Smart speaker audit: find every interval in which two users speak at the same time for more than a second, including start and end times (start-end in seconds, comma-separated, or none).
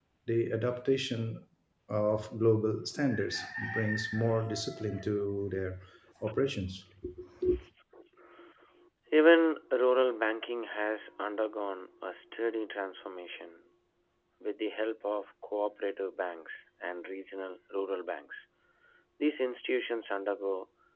none